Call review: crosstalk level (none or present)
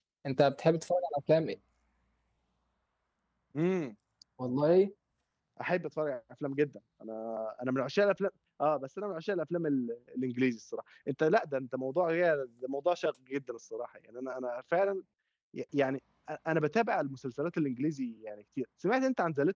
none